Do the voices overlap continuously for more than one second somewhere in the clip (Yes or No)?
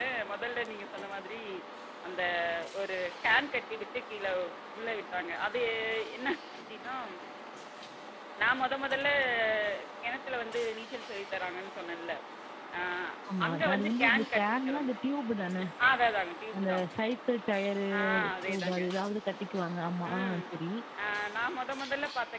Yes